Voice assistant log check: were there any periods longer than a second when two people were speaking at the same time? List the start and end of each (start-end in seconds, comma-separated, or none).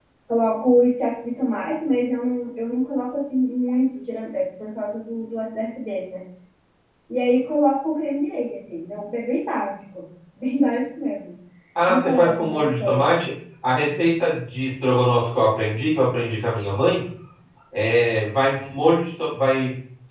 11.9-13.2